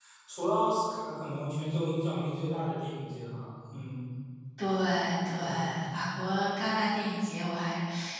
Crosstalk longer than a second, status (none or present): none